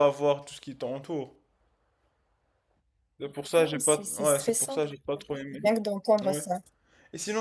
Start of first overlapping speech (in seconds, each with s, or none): 3.6 s